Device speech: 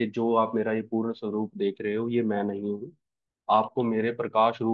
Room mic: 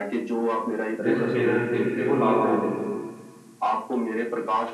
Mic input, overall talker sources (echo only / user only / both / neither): both